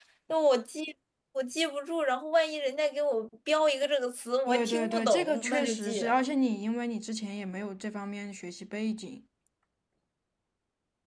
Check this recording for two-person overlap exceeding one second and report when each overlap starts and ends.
4.5-6.2

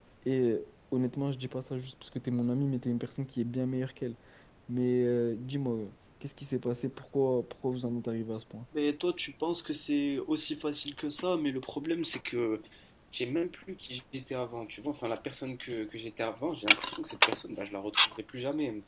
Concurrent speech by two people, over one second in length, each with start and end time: none

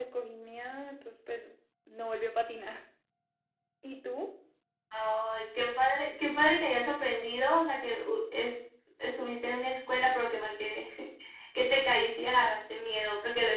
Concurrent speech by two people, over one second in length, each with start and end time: none

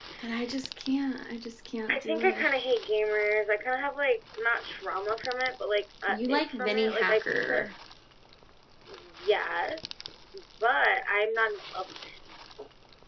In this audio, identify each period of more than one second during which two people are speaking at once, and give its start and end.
6.1-7.7

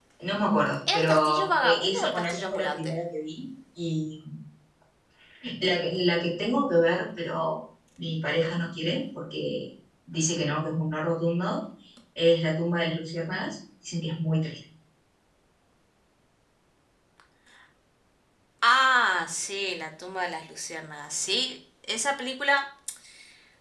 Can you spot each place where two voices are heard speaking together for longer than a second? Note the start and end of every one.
0.9-2.9

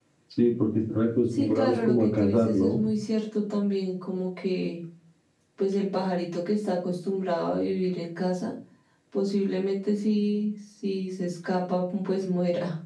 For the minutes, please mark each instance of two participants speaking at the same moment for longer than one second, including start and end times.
1.4-2.8

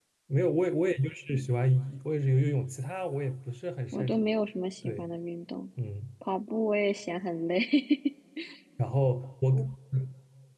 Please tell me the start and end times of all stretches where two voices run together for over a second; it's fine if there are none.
none

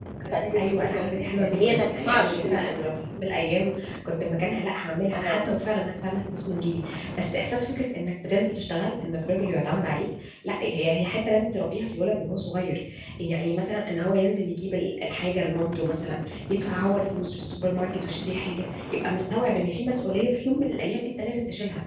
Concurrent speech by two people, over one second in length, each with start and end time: 0.6-2.7

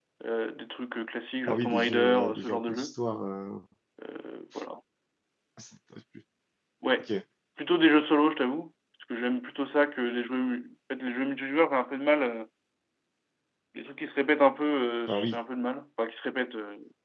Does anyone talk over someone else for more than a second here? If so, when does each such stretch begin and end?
1.5-2.9

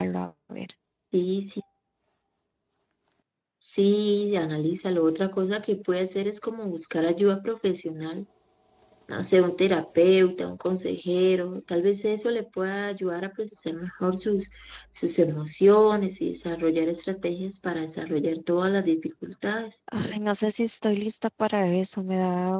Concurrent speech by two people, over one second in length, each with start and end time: none

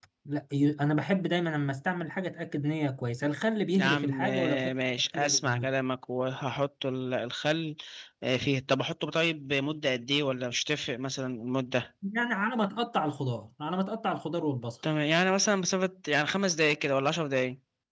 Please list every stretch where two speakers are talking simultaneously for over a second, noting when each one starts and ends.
3.8-5.7

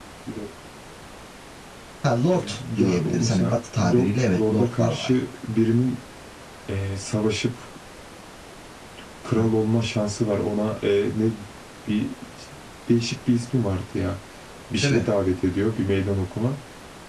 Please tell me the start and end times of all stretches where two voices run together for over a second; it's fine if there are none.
2.3-5.2

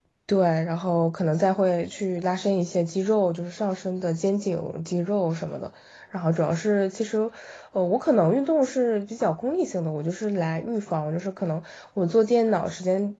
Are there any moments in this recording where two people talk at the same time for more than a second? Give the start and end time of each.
none

